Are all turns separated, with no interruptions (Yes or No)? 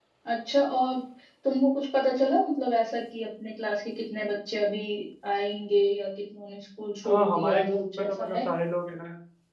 No